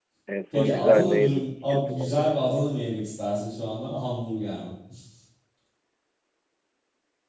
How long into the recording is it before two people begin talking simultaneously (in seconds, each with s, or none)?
0.5 s